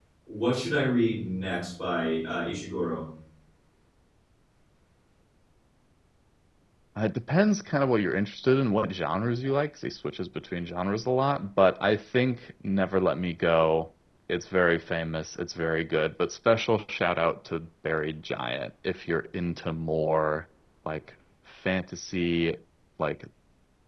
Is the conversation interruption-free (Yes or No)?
Yes